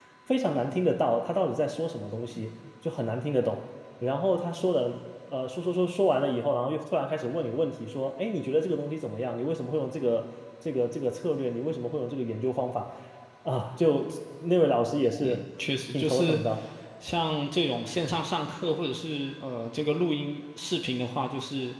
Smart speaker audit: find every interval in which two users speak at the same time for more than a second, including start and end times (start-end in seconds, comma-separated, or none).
none